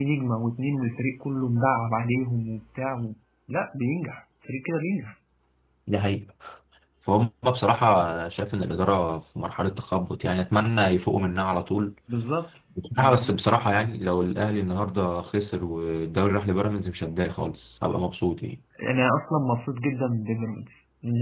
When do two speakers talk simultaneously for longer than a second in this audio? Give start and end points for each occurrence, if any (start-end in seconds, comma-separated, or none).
none